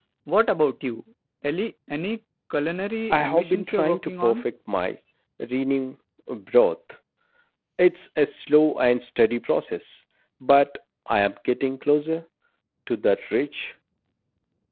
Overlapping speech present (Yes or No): Yes